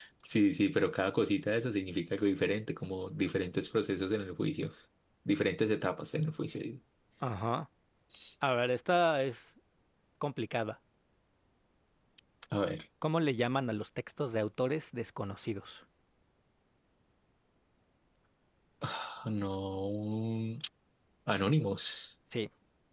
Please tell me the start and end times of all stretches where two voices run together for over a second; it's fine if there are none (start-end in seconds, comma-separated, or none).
none